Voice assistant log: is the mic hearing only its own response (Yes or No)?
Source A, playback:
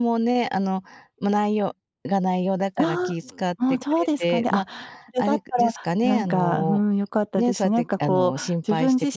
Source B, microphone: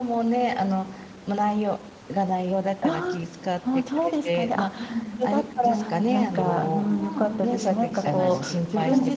No